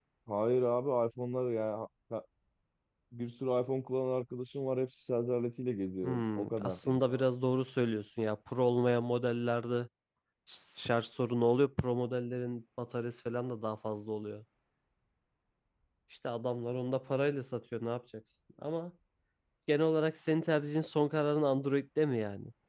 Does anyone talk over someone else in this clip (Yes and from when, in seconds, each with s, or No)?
Yes, from 6.0 s